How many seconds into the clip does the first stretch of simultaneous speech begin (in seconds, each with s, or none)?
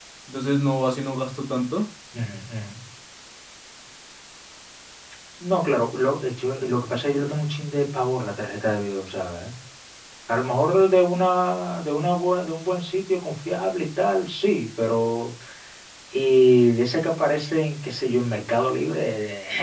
none